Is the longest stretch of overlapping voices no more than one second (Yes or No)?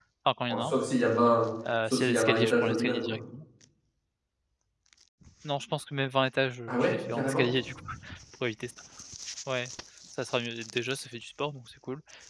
No